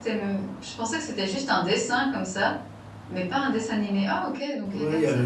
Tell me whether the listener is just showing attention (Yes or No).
No